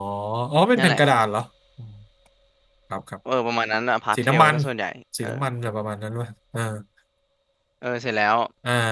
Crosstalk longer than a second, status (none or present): none